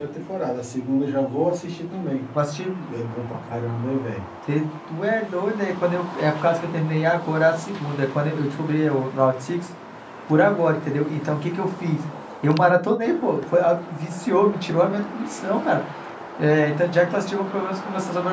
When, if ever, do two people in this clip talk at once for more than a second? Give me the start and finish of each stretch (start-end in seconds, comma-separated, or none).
none